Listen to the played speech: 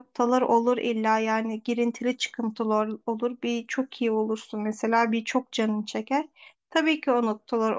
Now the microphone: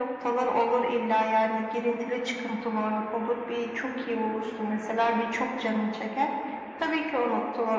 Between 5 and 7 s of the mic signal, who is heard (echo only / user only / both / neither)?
echo only